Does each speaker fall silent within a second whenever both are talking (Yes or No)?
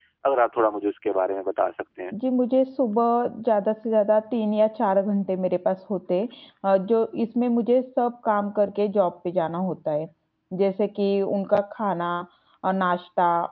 Yes